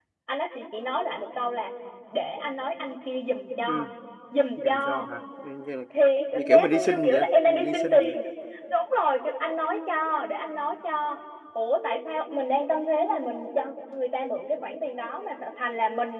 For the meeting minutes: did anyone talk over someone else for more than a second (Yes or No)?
Yes